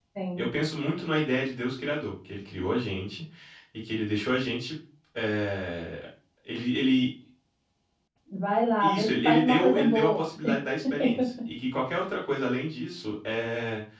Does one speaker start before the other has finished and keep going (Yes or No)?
Yes